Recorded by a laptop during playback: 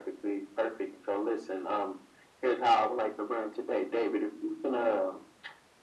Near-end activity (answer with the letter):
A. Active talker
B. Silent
B